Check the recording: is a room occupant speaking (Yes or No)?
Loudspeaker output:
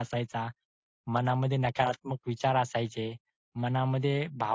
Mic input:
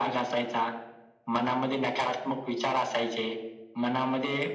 No